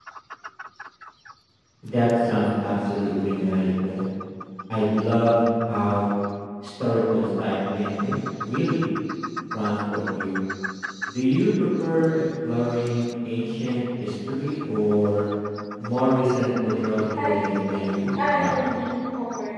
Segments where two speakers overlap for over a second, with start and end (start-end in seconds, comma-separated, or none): 17.2-18.8